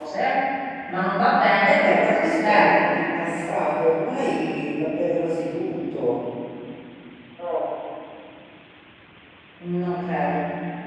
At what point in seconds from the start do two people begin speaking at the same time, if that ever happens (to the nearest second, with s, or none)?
2 s